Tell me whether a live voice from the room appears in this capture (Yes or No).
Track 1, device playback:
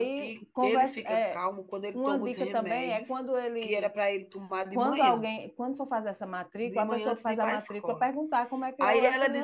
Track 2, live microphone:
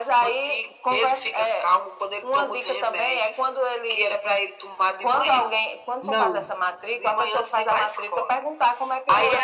Yes